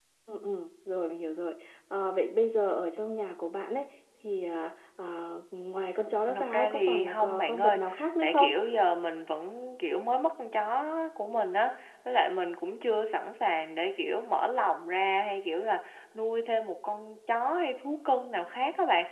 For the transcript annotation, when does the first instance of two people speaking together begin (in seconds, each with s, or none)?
6.0 s